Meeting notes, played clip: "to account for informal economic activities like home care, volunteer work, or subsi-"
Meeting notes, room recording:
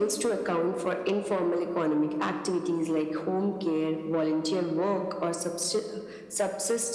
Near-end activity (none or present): none